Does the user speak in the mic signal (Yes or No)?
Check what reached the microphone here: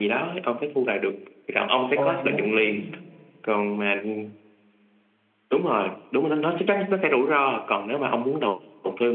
Yes